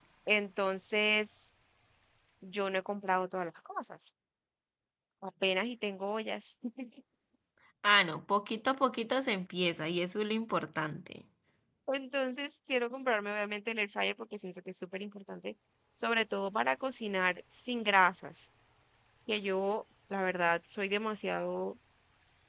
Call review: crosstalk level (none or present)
none